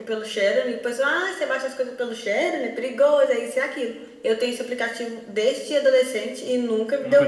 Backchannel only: No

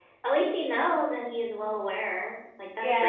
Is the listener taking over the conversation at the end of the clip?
Yes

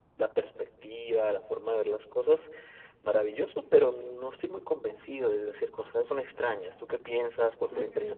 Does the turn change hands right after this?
Yes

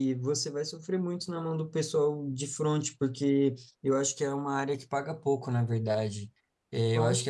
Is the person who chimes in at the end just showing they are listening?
Yes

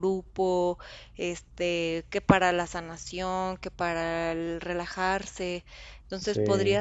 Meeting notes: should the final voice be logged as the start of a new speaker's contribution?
No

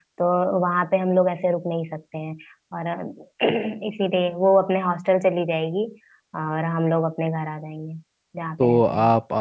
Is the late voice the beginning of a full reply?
Yes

